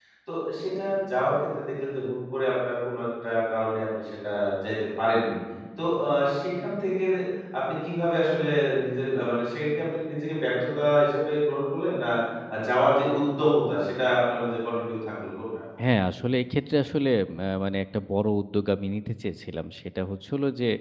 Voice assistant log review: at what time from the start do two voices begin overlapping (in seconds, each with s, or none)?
none